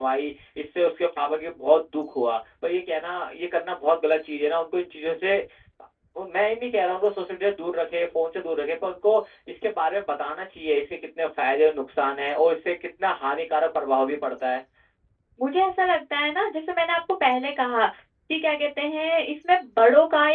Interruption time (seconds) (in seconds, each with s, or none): none